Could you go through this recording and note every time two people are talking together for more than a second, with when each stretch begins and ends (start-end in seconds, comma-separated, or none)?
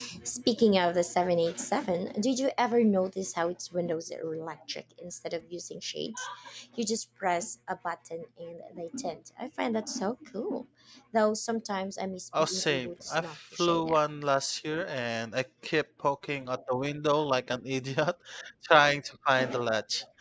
12.4-14.1